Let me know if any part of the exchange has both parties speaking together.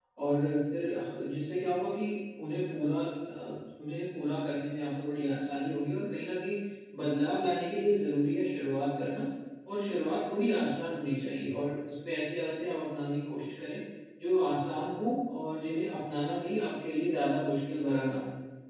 No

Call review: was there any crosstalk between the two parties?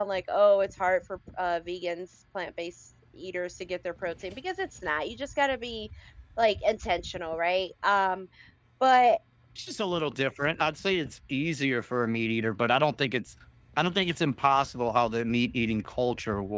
No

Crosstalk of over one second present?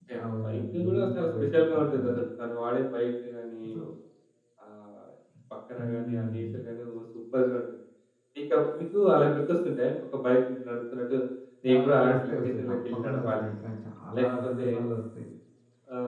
Yes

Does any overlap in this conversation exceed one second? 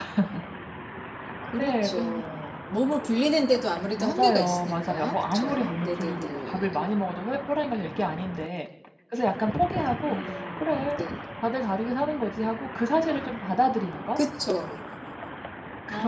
Yes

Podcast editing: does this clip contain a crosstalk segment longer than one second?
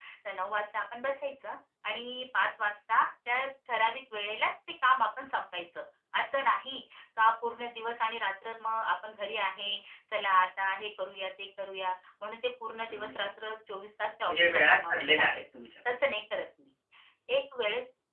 Yes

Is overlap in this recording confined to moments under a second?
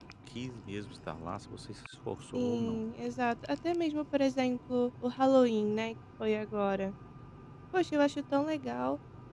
Yes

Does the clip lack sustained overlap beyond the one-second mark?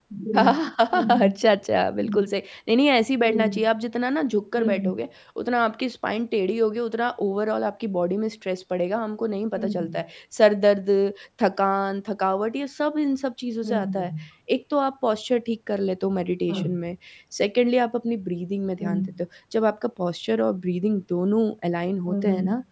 Yes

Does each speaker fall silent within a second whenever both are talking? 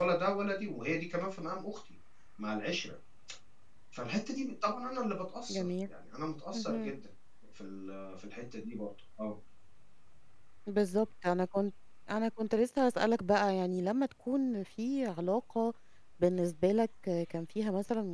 Yes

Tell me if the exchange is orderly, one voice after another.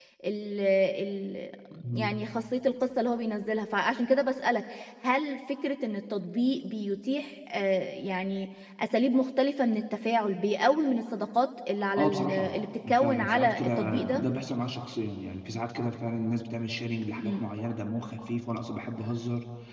No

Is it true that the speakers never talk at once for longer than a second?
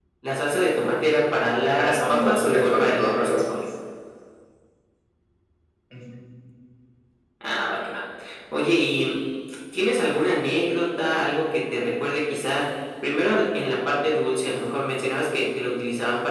No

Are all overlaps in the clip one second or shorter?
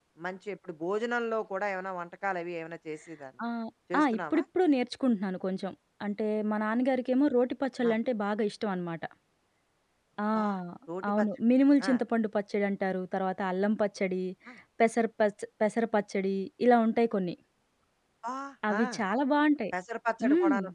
Yes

